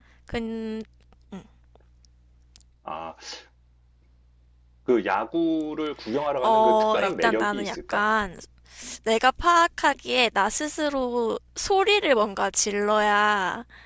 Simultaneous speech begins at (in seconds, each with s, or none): 6.4 s